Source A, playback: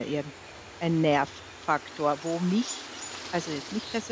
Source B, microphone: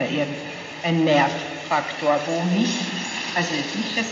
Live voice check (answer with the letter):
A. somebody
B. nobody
B